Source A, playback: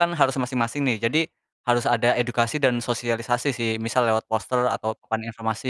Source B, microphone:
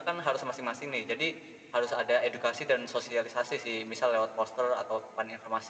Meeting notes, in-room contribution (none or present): none